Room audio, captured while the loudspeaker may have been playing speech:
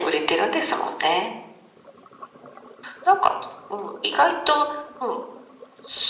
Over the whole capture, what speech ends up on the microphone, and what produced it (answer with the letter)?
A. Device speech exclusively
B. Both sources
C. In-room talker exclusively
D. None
A